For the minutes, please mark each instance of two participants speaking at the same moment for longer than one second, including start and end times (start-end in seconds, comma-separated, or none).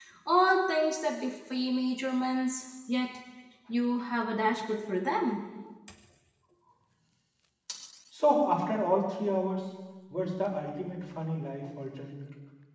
none